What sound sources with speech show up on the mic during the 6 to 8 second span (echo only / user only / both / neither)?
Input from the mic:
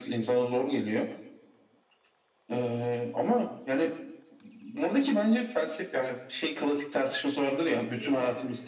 both